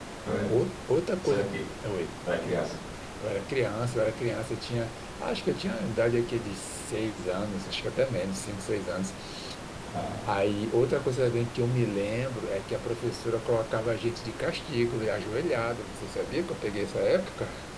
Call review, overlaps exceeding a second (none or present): none